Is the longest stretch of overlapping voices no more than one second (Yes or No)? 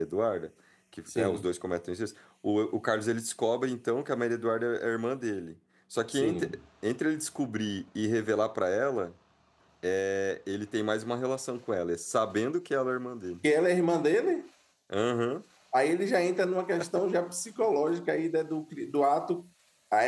Yes